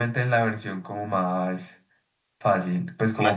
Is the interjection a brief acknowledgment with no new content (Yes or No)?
Yes